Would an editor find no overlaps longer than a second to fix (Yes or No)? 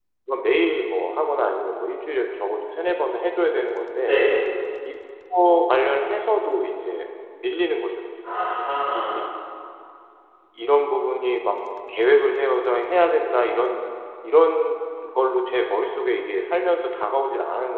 Yes